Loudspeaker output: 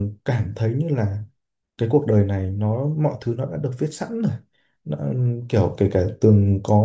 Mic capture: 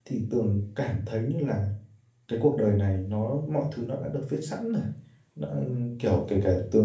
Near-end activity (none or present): none